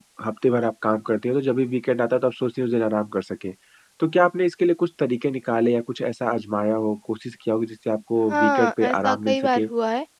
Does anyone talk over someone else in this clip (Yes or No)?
Yes